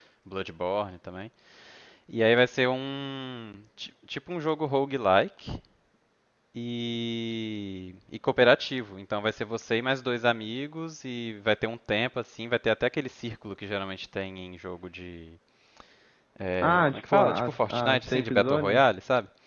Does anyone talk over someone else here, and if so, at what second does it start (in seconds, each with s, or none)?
16.6 s